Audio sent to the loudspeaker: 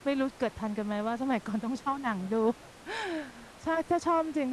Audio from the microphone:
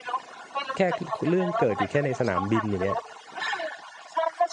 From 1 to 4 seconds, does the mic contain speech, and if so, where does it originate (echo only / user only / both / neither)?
both